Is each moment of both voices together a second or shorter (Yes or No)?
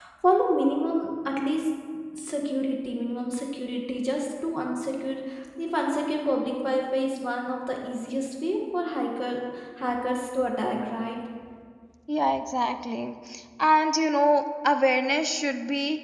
Yes